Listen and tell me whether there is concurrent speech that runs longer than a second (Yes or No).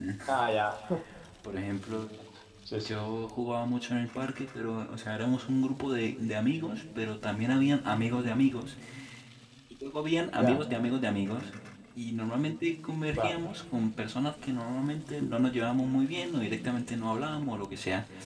No